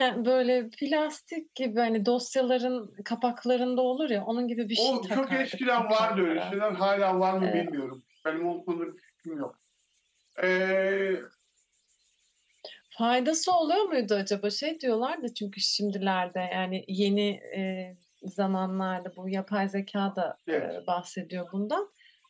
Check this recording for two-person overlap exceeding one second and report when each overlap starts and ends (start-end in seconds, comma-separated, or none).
4.8-6.6